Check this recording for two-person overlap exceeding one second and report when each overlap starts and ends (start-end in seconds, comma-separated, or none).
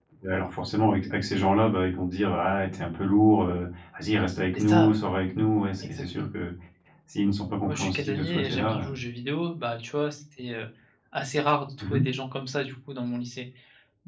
7.6-8.9